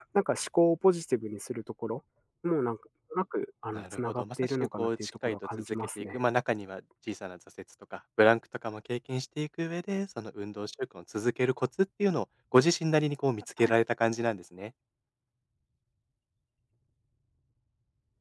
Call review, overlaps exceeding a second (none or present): present